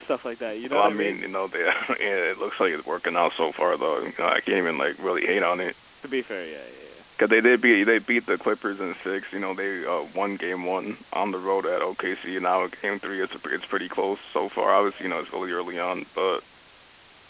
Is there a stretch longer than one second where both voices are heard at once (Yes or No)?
No